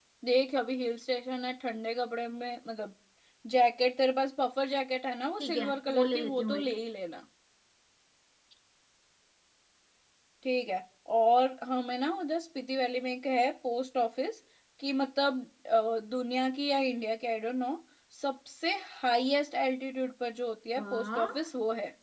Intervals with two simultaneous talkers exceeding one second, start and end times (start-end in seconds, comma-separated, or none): 5.4-6.7